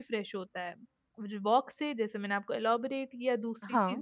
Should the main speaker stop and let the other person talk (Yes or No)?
No